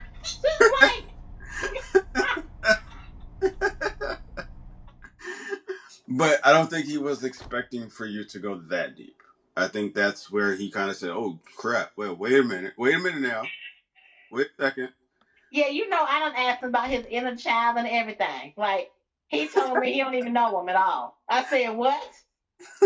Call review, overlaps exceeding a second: none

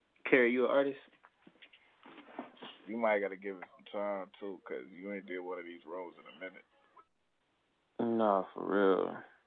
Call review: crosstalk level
none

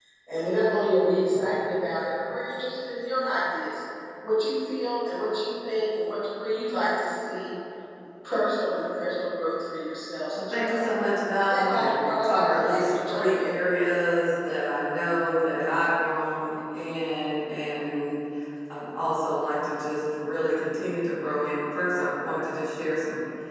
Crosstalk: present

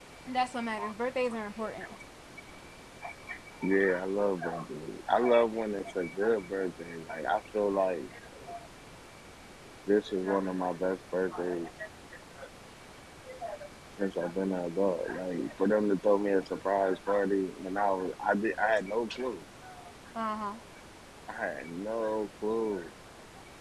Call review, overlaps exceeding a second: none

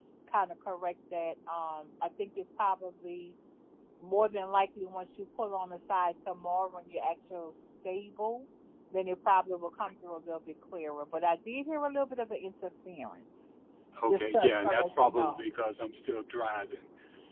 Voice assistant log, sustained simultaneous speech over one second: present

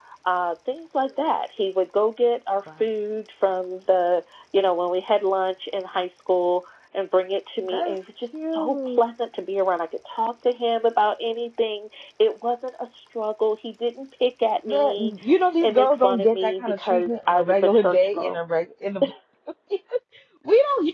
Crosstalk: present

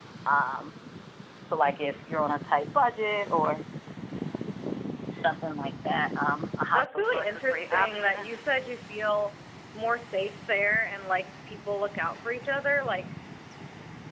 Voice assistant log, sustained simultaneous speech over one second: present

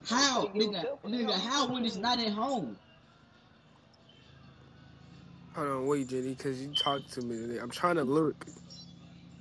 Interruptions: present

